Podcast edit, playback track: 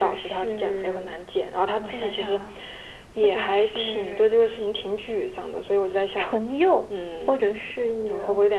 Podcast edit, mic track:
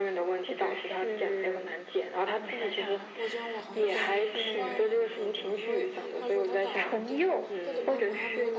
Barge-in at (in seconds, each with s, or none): 3.1 s